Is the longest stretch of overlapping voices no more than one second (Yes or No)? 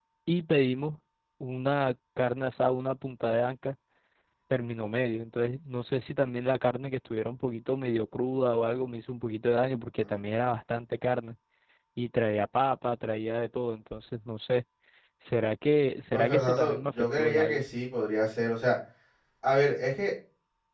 No